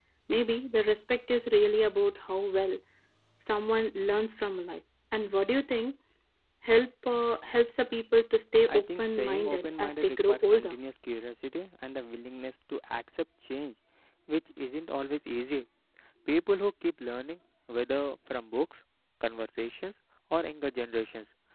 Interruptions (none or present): present